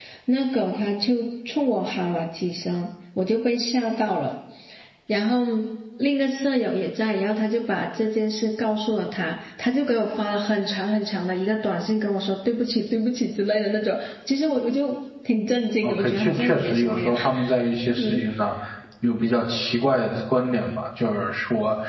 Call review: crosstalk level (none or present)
present